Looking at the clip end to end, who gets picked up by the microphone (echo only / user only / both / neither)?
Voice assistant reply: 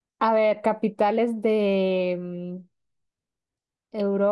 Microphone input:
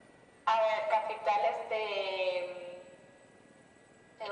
echo only